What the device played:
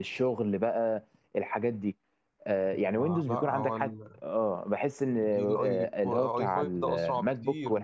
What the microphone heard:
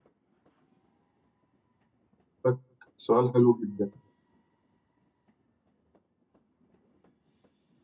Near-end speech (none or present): present